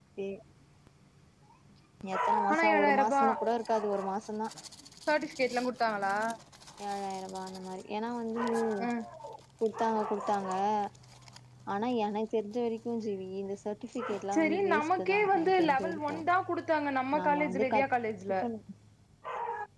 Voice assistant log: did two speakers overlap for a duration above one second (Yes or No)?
Yes